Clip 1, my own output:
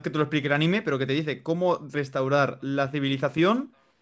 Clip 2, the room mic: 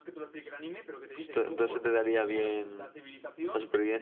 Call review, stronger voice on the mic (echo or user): user